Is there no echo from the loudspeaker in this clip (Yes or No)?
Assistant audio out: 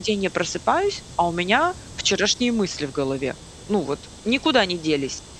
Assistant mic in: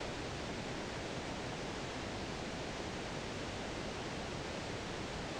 Yes